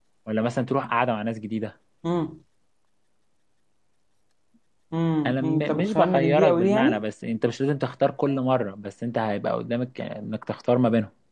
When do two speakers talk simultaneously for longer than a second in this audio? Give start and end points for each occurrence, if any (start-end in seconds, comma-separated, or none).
5.2-7.0